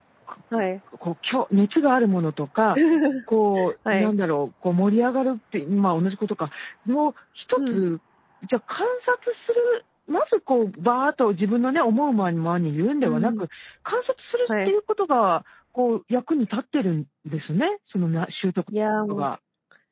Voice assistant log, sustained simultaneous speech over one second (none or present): none